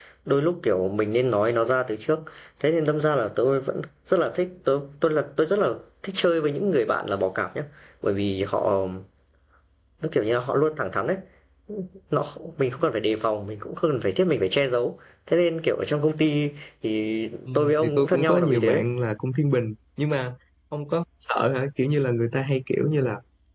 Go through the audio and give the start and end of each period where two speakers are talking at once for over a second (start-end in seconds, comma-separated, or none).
17.6-18.8